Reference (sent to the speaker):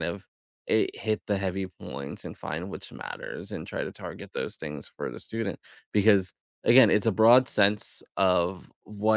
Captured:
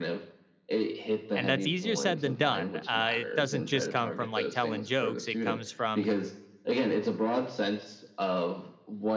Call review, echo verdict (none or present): present